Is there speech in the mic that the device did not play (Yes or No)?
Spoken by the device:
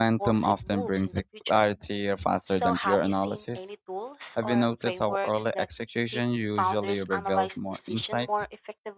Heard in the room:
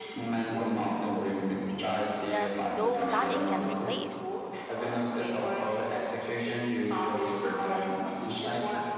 Yes